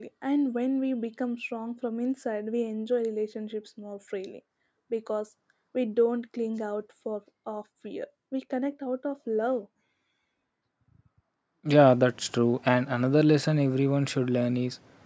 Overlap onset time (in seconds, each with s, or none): none